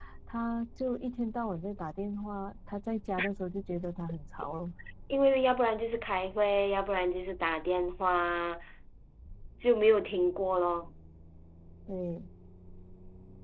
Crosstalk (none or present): none